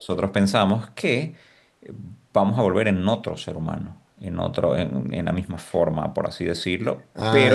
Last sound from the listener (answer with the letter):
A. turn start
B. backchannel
A